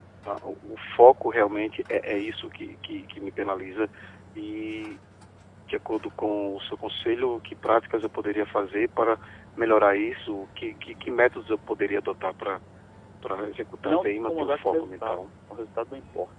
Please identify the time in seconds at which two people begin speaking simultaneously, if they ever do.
13.8 s

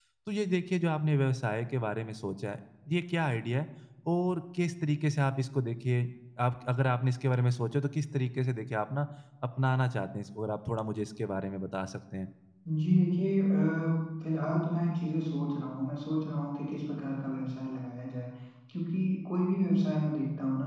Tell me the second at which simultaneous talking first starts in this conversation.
none

